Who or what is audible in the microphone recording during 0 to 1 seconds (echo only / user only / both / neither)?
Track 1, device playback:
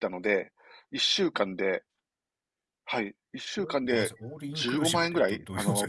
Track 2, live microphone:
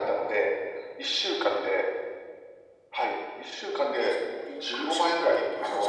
echo only